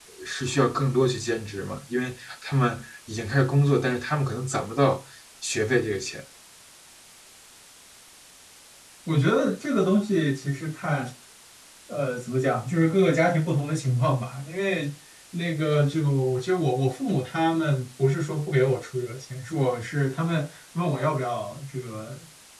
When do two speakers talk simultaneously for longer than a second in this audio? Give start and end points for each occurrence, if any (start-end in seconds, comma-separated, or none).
none